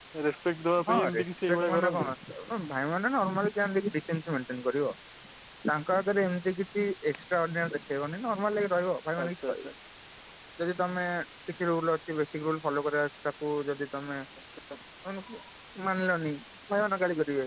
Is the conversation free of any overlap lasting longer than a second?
No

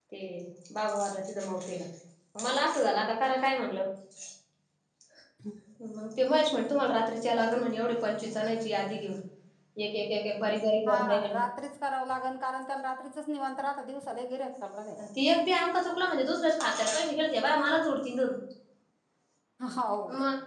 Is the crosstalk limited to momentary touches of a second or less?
Yes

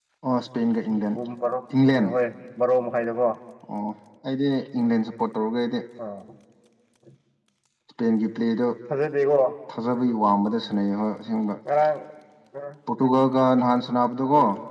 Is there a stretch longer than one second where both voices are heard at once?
No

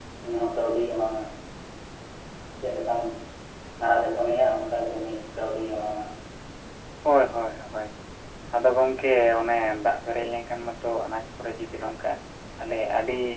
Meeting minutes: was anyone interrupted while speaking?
No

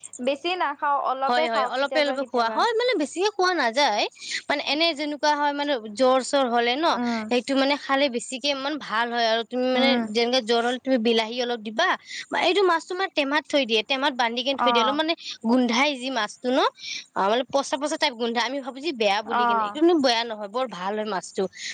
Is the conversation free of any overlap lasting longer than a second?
No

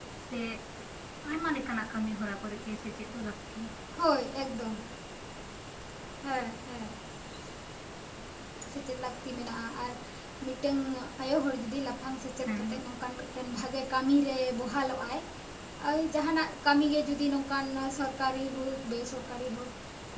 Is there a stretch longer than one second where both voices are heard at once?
No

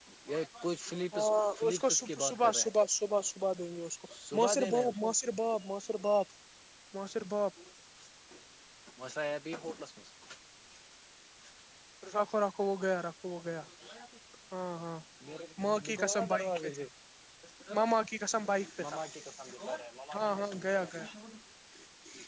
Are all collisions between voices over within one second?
No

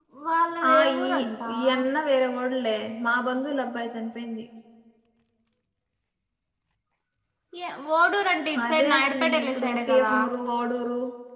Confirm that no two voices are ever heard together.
No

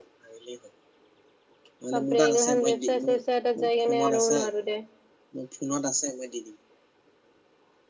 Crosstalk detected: Yes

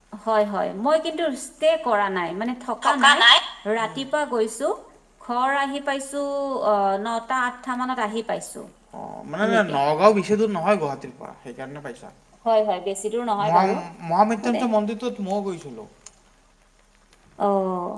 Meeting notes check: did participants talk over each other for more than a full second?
No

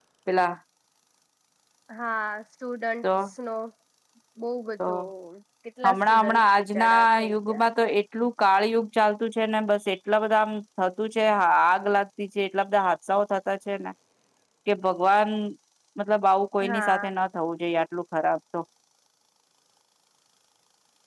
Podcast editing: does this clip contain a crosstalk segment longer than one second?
Yes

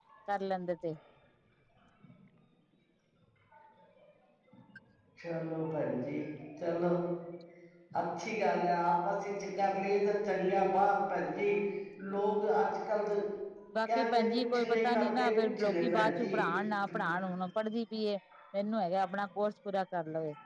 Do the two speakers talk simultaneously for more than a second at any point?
Yes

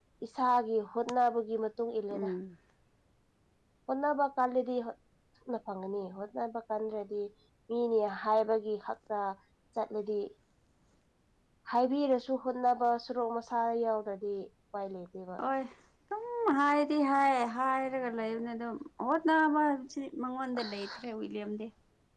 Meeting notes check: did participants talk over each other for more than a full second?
No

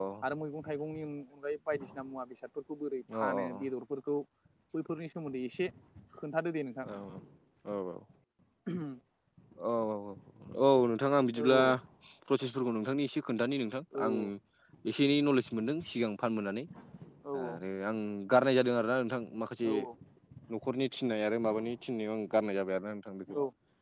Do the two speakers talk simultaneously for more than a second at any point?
No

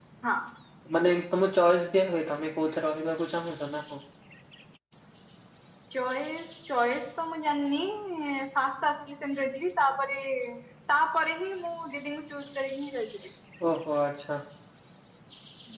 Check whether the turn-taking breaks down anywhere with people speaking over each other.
No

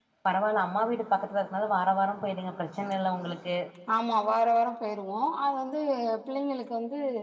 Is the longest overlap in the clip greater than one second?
No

